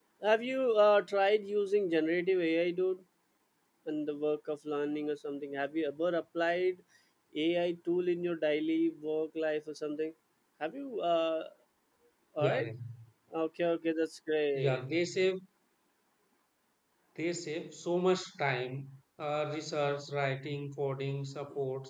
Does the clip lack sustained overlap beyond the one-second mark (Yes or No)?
Yes